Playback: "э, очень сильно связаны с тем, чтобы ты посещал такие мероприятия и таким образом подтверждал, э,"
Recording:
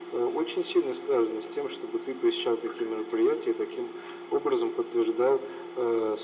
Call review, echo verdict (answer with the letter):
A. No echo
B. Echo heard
B